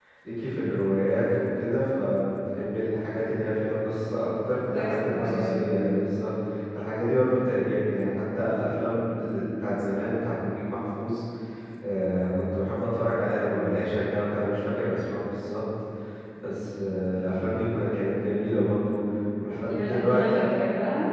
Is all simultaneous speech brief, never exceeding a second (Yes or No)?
No